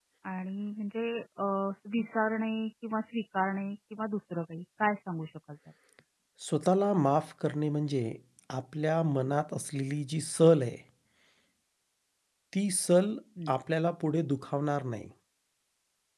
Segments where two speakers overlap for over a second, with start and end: none

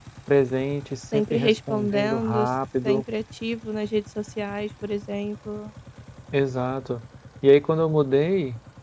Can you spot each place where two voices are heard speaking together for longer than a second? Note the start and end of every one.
1.1-2.4

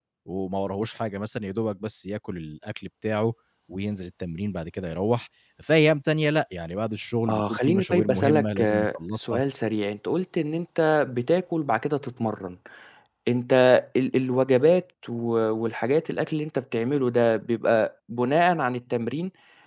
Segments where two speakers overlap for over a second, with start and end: 7.3-9.4

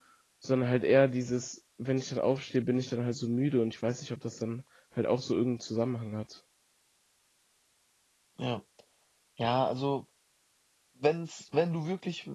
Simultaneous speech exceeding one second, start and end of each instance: none

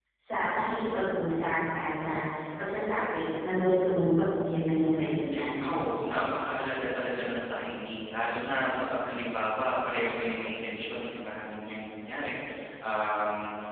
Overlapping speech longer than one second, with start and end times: none

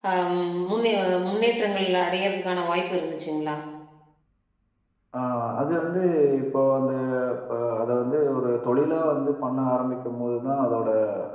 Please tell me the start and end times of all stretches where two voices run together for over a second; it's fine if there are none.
none

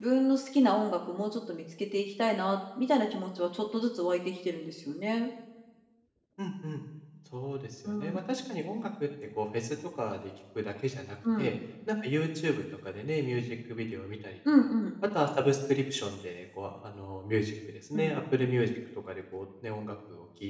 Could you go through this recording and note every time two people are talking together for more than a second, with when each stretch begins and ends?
none

